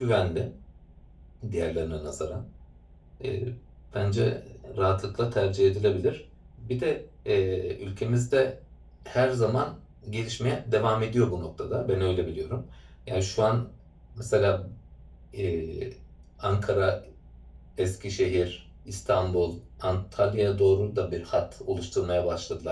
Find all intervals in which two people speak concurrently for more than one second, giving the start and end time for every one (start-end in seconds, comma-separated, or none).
none